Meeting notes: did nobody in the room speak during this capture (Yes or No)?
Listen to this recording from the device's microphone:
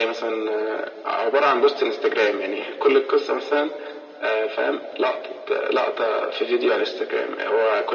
Yes